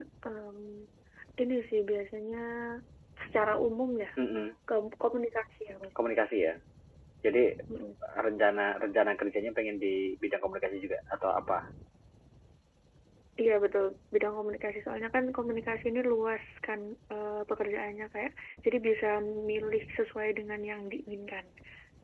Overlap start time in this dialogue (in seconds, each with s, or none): none